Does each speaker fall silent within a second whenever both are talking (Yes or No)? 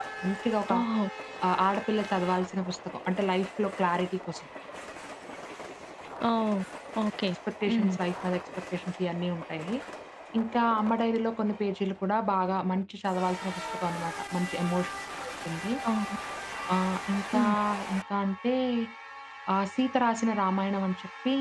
Yes